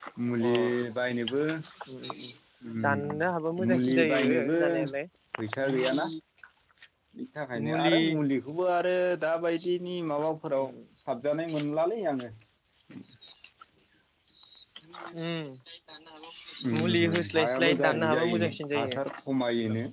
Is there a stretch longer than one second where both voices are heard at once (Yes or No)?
Yes